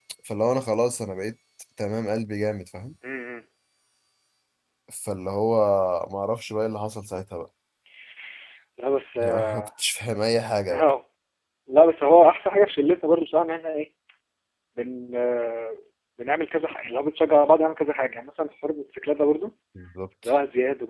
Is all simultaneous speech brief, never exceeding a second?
Yes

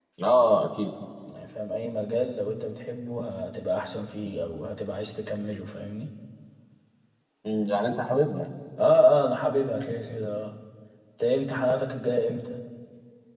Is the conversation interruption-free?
Yes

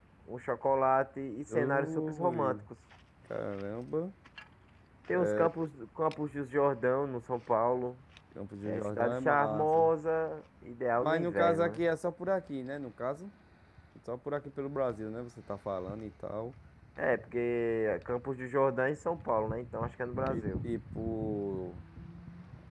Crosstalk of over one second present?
Yes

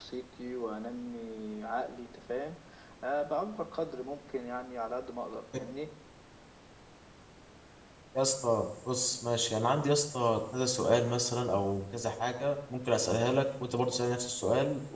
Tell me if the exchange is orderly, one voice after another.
Yes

